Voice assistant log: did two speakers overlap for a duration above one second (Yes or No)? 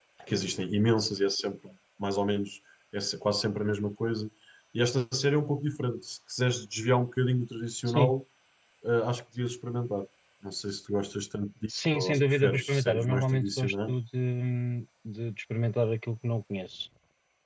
Yes